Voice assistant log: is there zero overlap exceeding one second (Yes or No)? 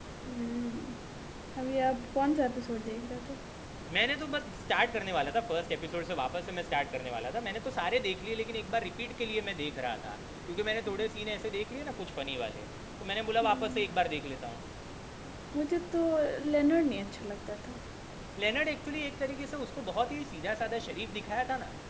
Yes